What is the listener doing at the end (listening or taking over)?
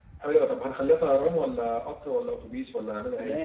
taking over